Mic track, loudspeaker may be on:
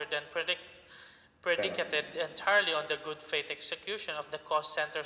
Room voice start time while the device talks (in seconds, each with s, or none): 1.5 s